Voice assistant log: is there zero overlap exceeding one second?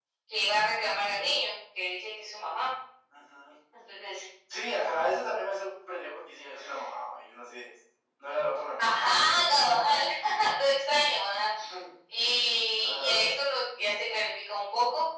Yes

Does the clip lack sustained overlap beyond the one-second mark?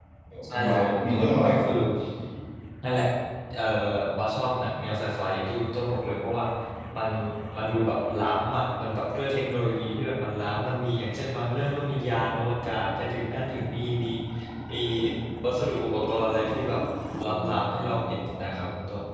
No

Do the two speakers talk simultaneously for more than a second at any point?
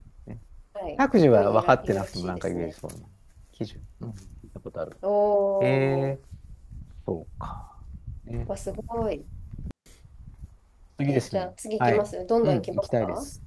Yes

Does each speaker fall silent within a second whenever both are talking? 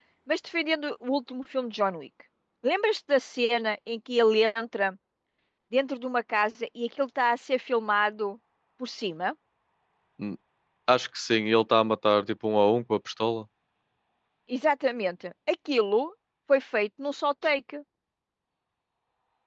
Yes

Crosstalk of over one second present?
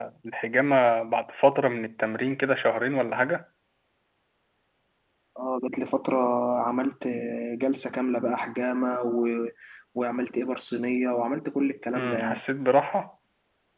No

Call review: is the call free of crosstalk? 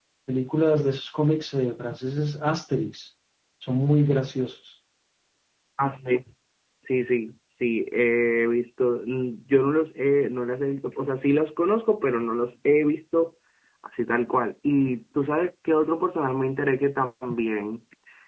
Yes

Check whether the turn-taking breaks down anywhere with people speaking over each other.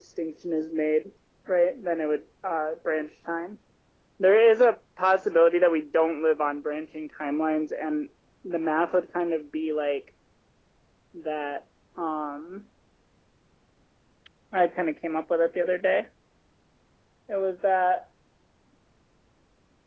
No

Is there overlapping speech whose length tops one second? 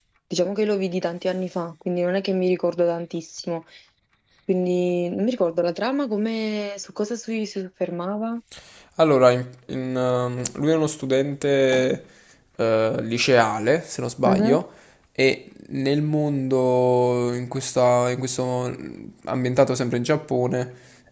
No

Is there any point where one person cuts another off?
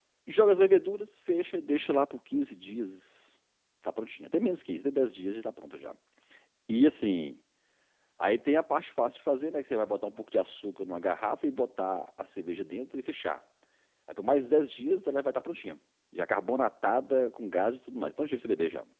No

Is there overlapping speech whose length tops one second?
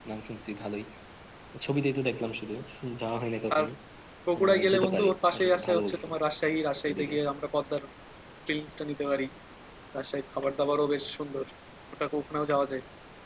Yes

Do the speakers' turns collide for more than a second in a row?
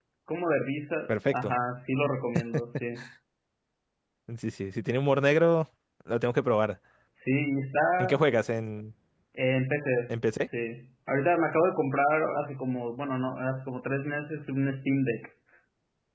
No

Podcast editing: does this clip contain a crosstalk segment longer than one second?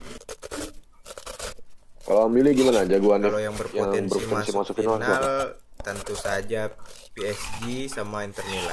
Yes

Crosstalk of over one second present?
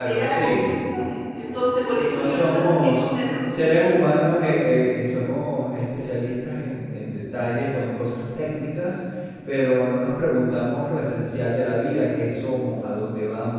Yes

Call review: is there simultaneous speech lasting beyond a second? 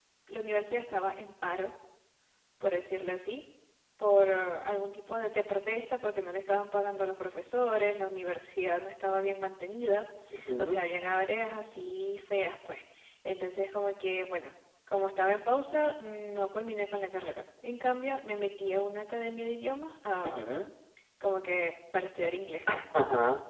No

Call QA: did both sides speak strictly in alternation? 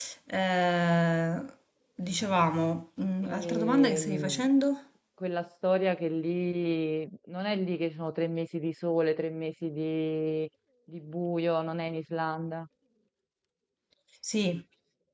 No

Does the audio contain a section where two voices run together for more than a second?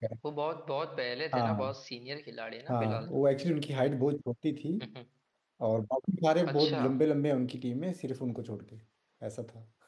No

